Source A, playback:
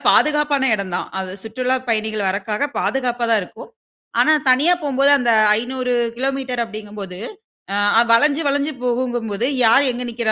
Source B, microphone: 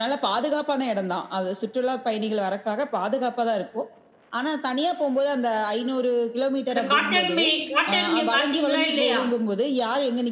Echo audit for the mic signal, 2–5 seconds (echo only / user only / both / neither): echo only